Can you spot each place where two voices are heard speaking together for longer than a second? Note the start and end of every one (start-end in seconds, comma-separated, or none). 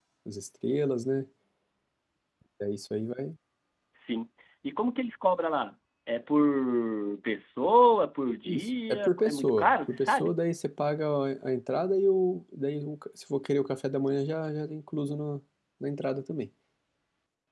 8.4-10.3